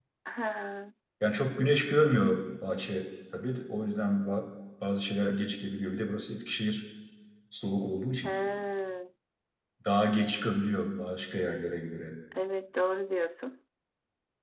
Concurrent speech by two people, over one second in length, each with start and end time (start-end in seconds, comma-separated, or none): none